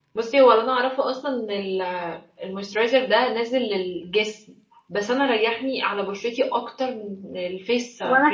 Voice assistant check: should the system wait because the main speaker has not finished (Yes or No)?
No